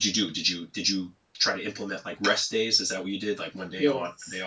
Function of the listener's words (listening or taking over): taking over